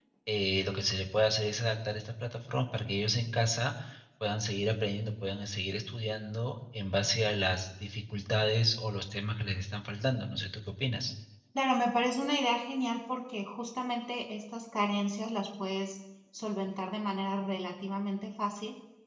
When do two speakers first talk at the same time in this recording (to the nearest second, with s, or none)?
none